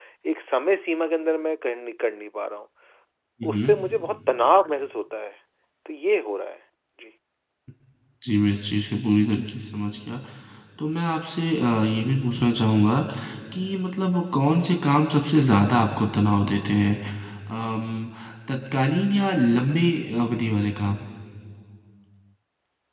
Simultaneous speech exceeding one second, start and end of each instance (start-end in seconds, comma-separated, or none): none